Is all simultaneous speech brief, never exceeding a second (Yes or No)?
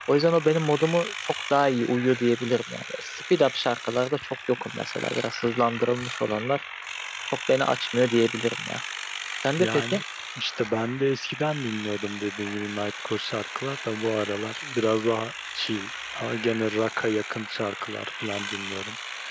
Yes